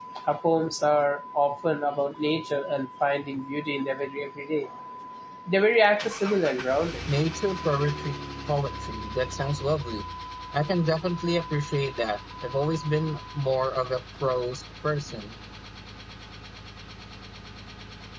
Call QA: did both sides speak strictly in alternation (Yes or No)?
Yes